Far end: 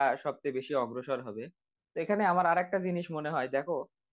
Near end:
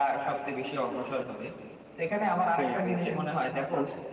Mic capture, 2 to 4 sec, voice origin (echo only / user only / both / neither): both